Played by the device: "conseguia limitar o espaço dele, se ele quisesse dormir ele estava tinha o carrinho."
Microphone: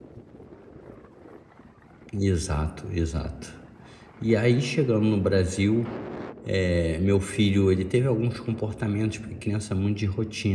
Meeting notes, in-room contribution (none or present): present